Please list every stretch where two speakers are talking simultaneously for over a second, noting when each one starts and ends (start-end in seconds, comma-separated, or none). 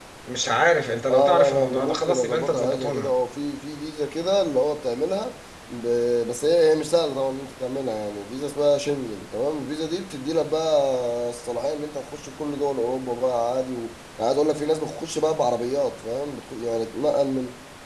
1.1-3.1